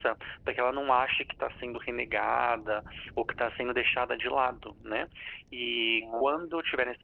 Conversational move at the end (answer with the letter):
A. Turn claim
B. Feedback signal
B